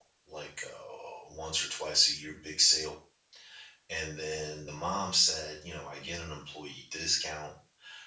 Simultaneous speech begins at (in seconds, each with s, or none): none